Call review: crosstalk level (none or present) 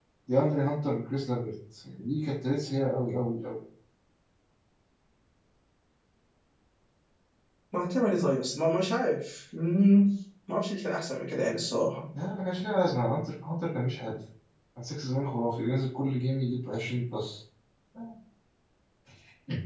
none